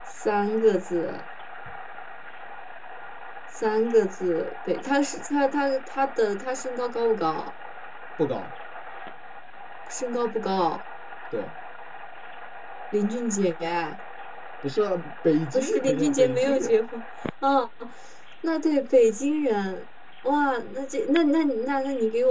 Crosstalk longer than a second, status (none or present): present